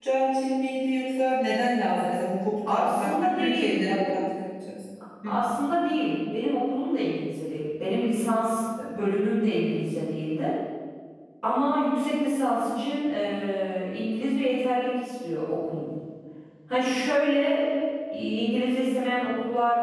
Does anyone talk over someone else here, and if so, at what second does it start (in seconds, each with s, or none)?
2.6 s